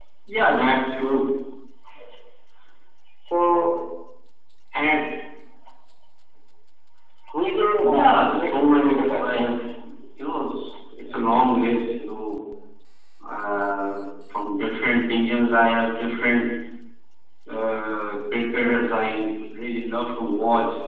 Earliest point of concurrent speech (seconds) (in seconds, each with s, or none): 7.8 s